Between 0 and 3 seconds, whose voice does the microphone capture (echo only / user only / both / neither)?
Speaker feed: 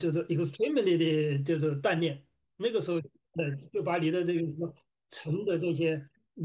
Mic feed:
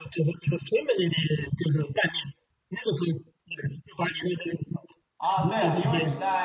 echo only